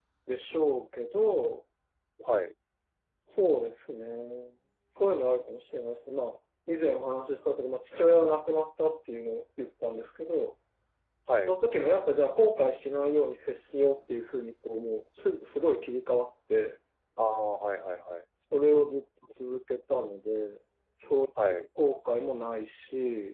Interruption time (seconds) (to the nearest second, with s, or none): none